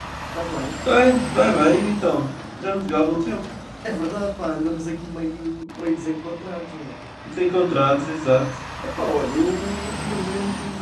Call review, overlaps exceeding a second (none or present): none